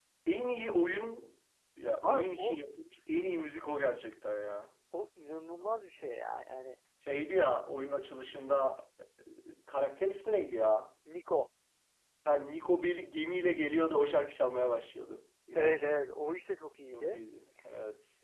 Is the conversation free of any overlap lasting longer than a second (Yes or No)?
Yes